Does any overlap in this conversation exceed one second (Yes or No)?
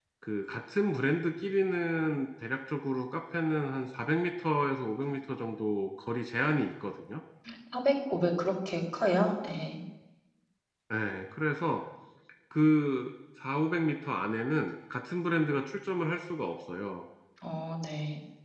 No